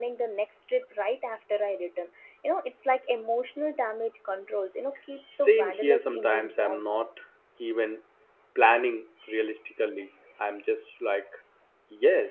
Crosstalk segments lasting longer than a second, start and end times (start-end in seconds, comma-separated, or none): 5.3-7.0